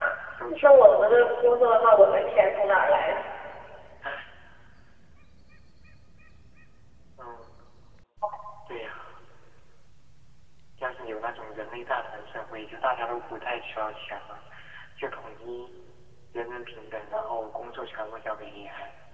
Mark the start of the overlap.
1 s

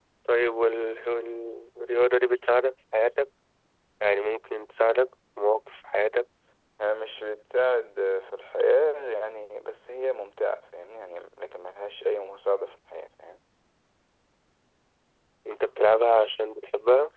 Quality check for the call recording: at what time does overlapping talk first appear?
none

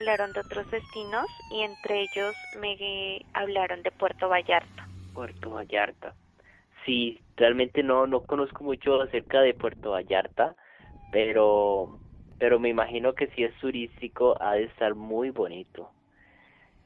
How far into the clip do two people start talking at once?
none

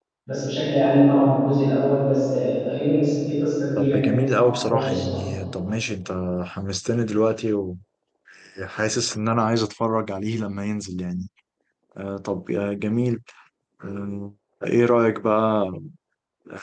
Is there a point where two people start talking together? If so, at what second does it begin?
4 s

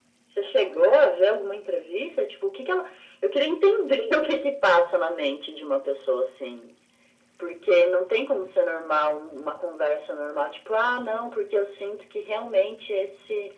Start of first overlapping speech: none

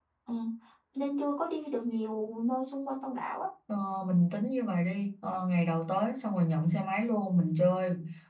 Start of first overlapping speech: none

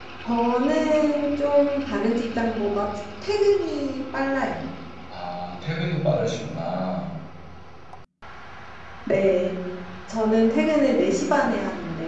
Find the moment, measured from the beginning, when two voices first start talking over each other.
none

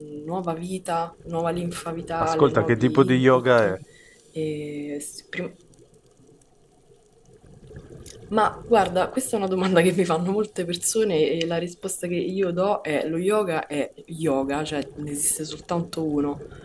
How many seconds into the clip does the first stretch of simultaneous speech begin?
2 s

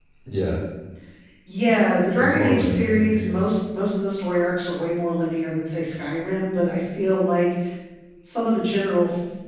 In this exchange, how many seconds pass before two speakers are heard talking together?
2 s

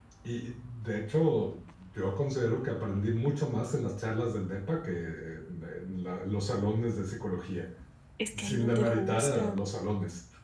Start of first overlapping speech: 8 s

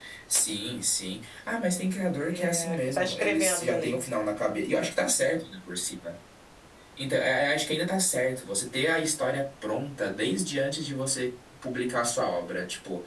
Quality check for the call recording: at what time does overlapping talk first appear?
2 s

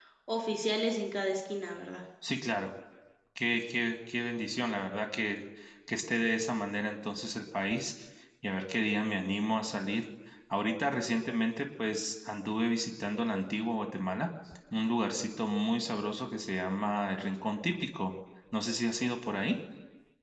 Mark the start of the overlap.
none

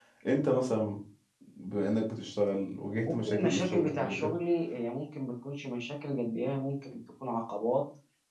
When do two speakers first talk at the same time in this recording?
3 s

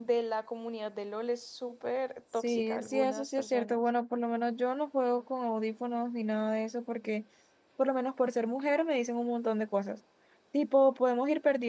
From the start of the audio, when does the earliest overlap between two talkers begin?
2 s

